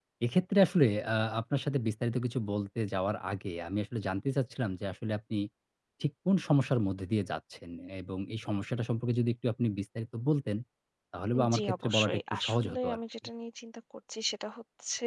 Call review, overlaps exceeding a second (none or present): present